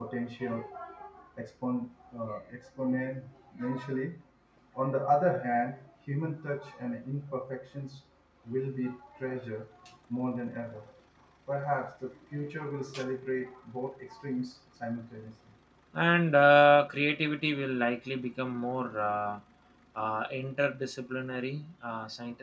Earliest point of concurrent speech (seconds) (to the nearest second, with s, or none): none